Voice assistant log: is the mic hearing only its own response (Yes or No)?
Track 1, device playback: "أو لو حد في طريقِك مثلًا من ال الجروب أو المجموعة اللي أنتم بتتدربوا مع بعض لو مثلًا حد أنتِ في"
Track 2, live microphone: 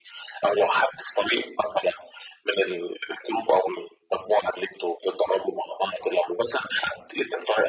Yes